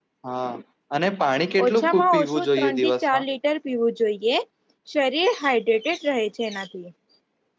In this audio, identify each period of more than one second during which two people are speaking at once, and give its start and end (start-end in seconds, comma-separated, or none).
1.6-3.2